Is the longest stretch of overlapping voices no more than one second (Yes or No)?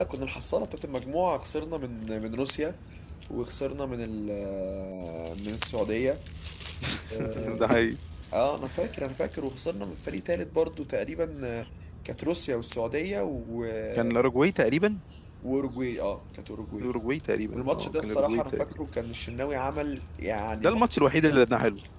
No